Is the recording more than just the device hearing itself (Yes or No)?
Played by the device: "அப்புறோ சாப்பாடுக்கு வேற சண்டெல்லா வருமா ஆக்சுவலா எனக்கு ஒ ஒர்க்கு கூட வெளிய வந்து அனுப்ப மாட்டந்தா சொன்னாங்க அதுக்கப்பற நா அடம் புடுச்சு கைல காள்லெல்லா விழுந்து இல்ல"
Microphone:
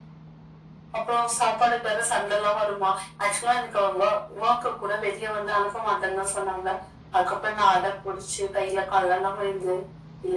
No